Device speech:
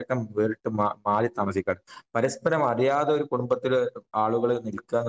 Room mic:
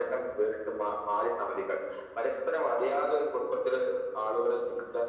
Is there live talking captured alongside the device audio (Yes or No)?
No